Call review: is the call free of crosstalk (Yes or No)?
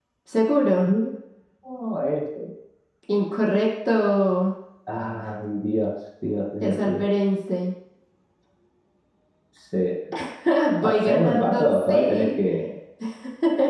No